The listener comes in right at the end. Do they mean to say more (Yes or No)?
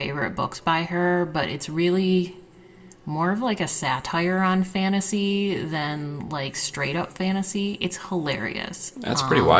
Yes